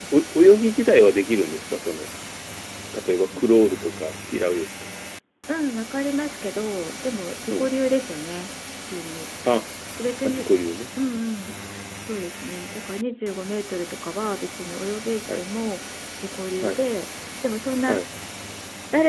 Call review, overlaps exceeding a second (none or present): none